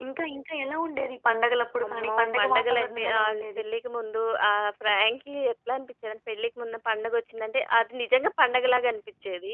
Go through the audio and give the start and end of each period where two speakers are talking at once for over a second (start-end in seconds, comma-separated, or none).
1.9-3.6